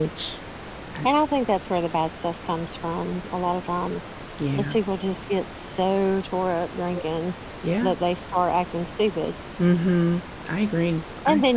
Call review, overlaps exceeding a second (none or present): none